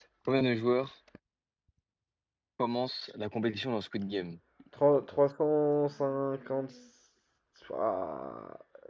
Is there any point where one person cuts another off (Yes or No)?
No